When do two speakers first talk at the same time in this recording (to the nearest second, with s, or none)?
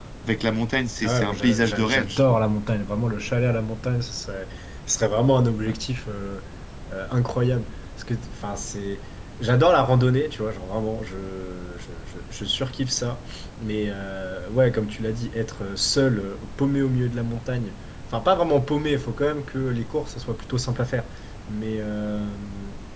1 s